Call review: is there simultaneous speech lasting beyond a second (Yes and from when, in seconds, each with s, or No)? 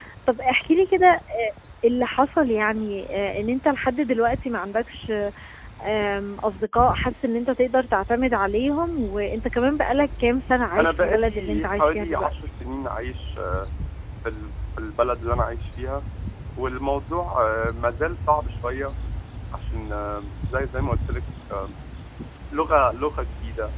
Yes, from 10.8 s